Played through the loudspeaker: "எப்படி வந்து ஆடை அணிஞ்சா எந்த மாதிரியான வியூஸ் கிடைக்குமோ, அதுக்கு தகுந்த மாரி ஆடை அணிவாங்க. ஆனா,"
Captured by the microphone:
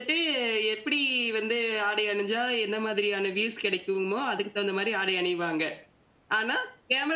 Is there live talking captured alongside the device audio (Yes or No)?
No